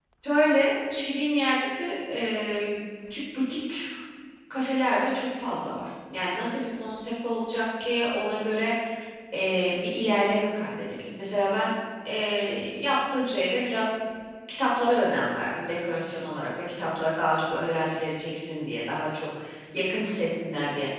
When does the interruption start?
none

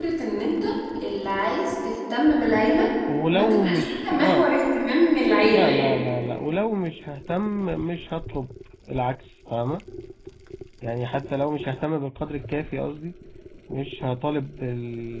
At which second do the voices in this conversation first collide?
3.3 s

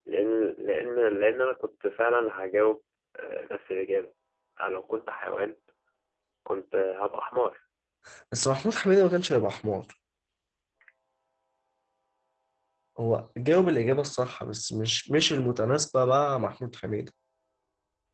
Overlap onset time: none

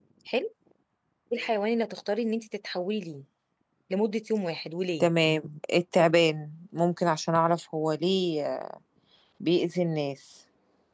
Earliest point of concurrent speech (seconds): none

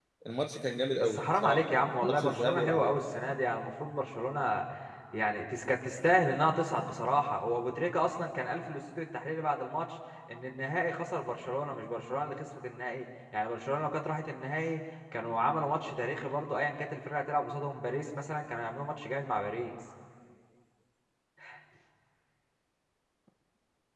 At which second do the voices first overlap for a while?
1.0 s

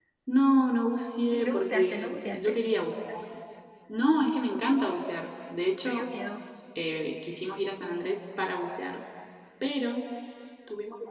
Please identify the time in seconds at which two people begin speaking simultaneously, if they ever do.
1.3 s

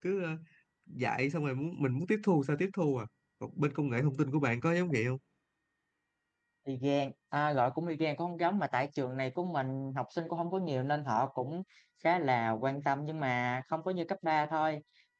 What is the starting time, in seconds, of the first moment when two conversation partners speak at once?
none

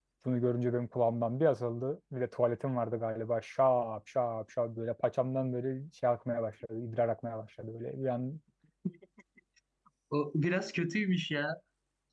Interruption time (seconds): none

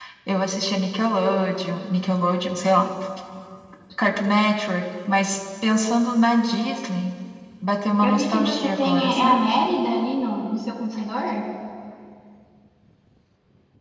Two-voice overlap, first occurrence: 8.0 s

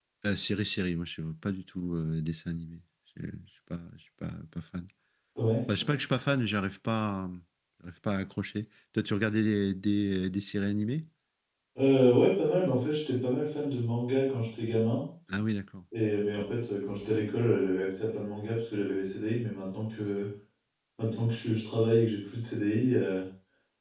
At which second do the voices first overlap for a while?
none

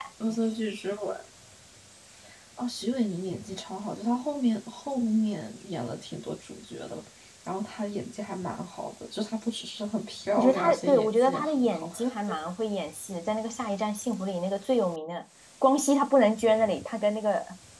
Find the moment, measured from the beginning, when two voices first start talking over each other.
10.4 s

